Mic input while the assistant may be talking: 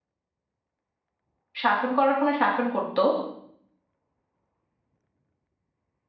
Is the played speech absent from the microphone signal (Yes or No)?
Yes